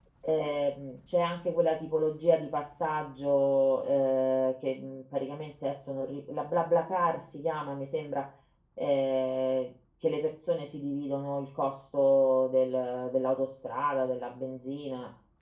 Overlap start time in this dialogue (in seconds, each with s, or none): none